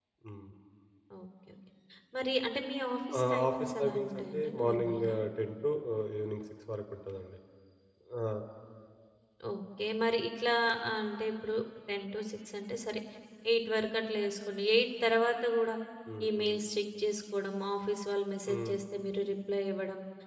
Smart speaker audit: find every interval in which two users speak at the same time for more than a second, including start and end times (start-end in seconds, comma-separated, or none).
3.2-5.1